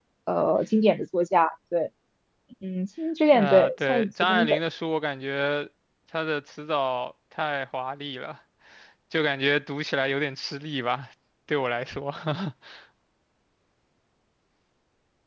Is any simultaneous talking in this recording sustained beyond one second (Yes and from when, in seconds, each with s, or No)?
Yes, from 3.3 s